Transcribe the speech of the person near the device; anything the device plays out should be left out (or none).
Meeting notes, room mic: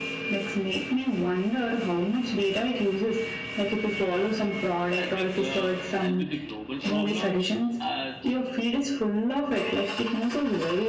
Mm, I think uh, help with the global problems as